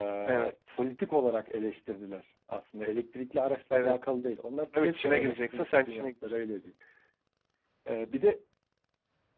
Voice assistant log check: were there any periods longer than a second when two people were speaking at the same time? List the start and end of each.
4.8-6.3

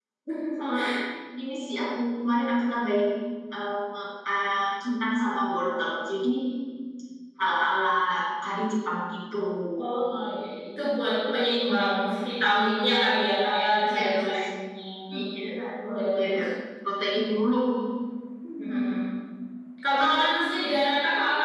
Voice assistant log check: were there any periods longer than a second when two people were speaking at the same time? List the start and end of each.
none

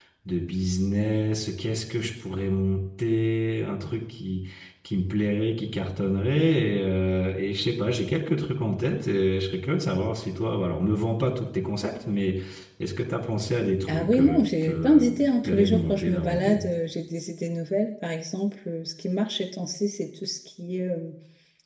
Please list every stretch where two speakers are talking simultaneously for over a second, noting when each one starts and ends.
13.9-16.6

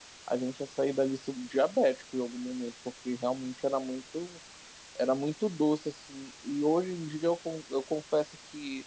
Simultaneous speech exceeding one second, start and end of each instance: none

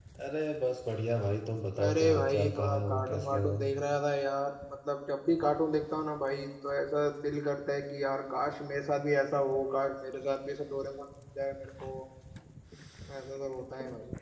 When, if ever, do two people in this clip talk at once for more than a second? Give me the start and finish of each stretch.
1.8-3.6

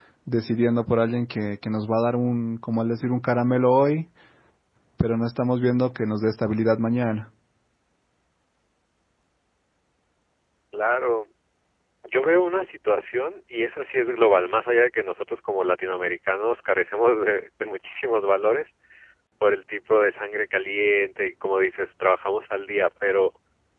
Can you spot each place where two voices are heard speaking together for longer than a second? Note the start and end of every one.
none

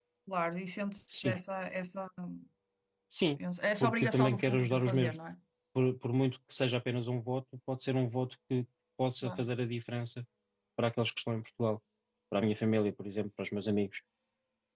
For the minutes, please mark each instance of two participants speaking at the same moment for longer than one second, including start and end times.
3.8-5.2

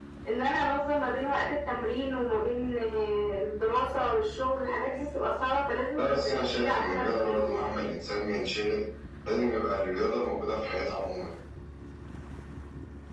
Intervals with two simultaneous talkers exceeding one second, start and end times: 6.0-7.8

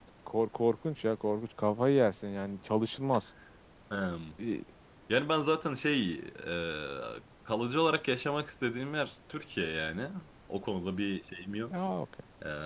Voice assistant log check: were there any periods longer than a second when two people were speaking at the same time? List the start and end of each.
none

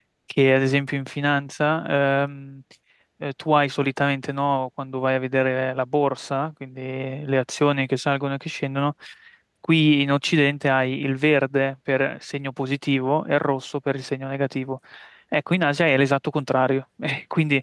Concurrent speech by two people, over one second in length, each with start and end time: none

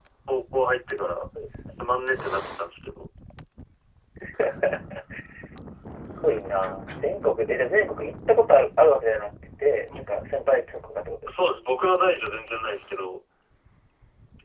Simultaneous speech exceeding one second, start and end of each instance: none

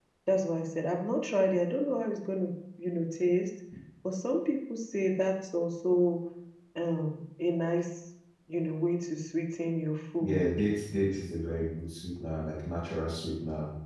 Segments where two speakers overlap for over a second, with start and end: none

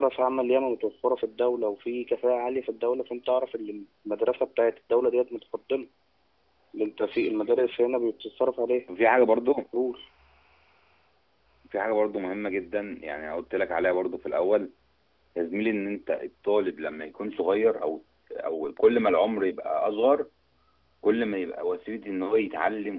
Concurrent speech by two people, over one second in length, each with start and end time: none

